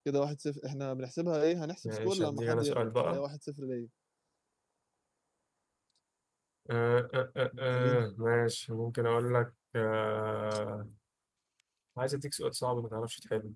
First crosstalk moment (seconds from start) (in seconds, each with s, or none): 1.8 s